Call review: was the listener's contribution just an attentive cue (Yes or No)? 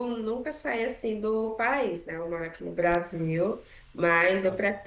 Yes